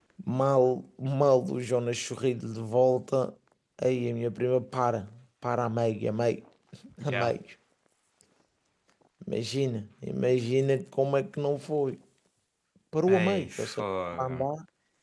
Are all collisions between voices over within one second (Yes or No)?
No